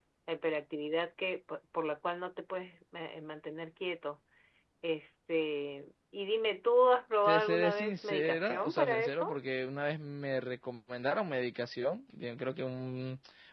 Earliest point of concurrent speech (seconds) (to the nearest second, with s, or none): 7 s